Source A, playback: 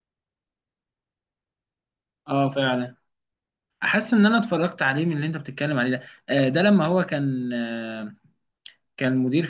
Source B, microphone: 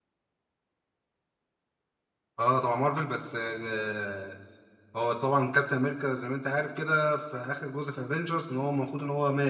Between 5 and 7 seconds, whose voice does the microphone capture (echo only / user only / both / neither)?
user only